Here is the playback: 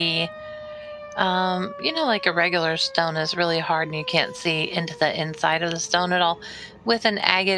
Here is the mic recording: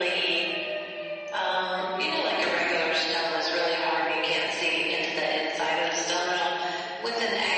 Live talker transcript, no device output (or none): none